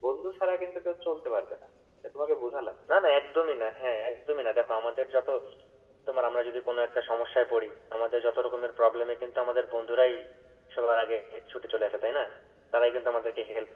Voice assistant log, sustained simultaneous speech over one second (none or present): none